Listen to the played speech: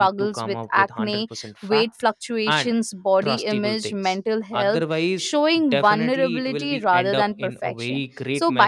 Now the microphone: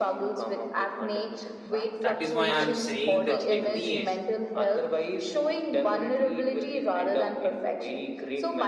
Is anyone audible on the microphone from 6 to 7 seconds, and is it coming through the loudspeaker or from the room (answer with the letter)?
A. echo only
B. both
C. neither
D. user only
A